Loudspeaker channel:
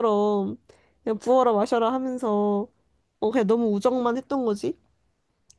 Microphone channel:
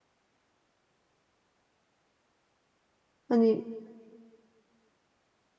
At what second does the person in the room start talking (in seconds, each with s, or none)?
3.3 s